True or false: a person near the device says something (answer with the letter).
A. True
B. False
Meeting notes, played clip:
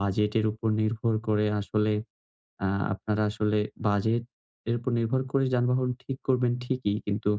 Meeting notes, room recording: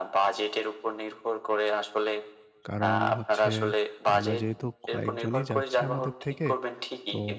A